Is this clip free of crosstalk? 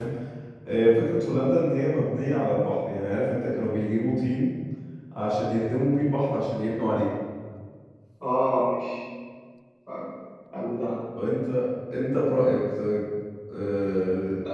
Yes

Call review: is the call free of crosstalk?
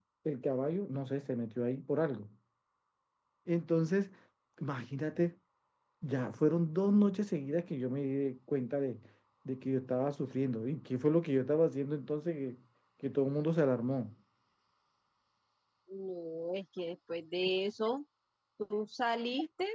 Yes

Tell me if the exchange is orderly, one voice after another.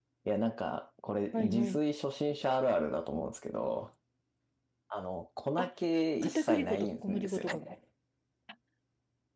No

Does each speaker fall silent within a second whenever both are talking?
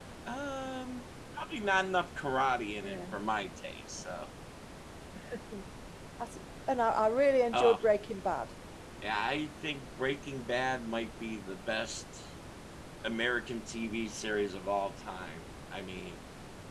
Yes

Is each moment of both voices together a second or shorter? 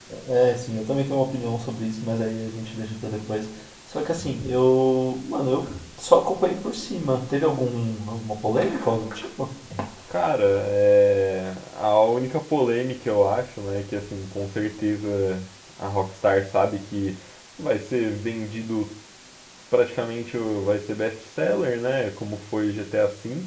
Yes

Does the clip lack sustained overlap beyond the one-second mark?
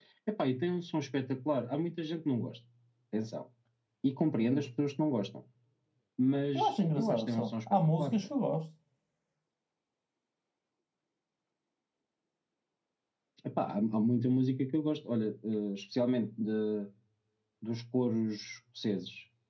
No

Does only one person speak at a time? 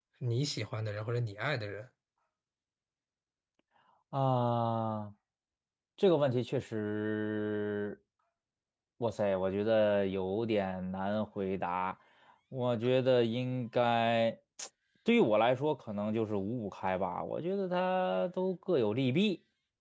Yes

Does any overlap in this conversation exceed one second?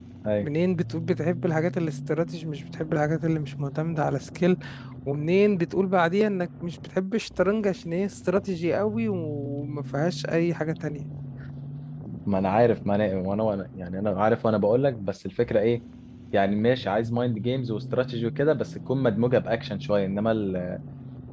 No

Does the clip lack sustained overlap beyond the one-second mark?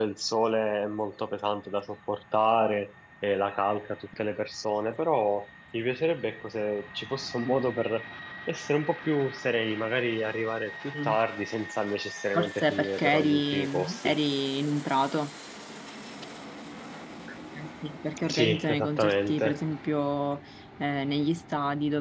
No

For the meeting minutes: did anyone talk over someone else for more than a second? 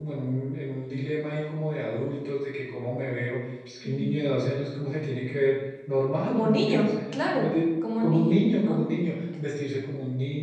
Yes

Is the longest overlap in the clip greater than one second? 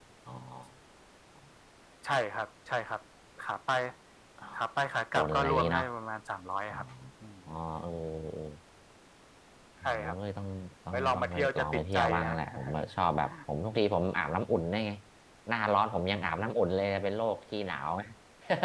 Yes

